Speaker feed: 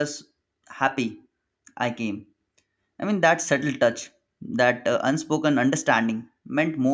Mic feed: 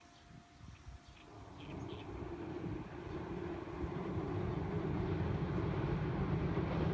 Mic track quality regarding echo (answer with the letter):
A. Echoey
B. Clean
B